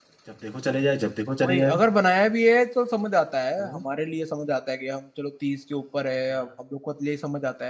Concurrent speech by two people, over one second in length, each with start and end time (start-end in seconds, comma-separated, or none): none